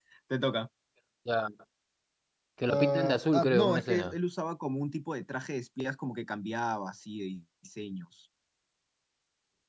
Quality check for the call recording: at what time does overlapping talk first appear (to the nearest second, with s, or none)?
3 s